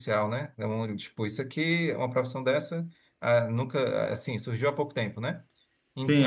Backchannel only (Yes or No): No